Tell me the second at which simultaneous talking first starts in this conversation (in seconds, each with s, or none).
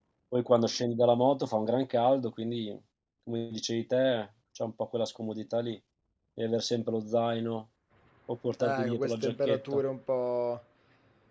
8.6 s